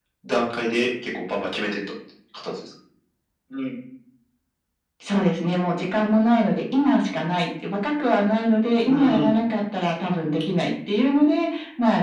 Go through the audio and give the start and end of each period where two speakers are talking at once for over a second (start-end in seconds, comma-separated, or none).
none